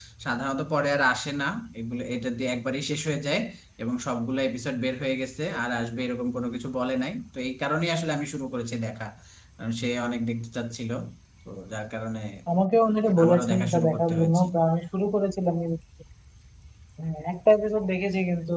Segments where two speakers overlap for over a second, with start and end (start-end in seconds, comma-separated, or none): 13.2-14.4